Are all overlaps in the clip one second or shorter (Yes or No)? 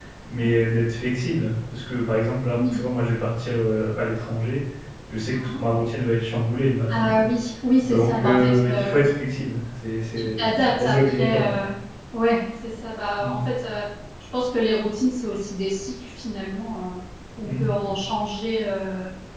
No